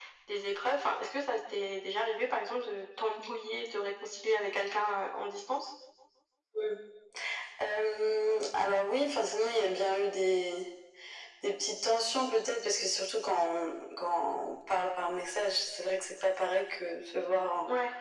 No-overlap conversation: Yes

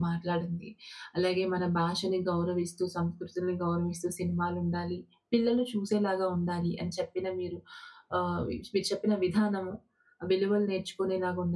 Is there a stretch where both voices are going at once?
No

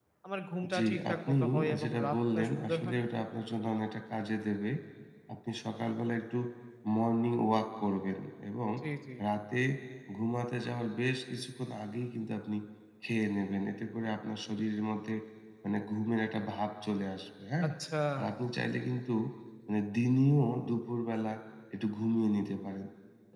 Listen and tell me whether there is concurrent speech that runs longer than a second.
Yes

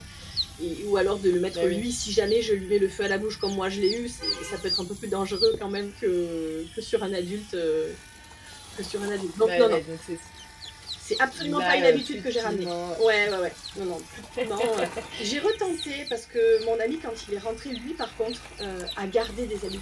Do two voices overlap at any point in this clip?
Yes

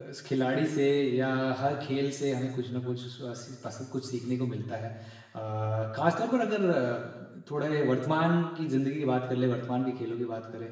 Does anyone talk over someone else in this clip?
No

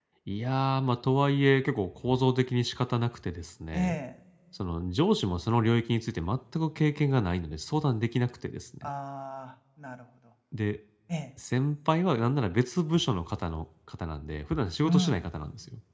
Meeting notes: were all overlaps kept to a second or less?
Yes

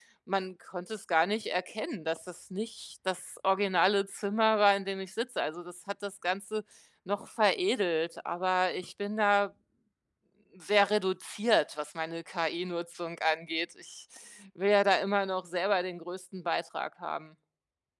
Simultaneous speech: No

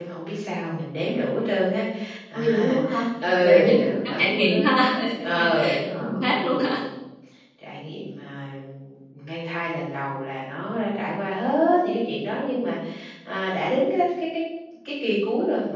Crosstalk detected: Yes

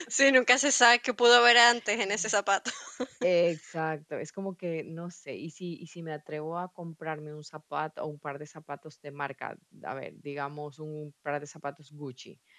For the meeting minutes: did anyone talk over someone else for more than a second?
No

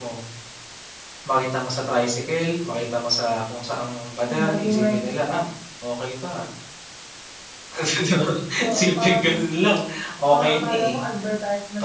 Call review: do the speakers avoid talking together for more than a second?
No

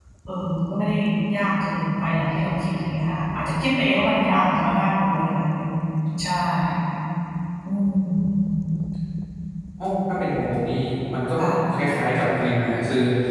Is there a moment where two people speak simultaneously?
No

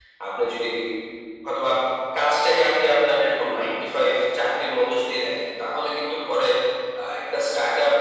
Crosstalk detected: No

